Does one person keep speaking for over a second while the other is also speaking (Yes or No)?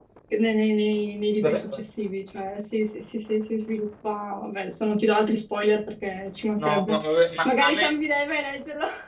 No